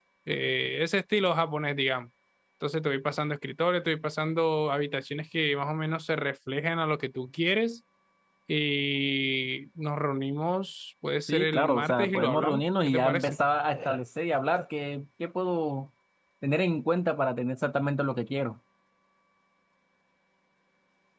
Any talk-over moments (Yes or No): Yes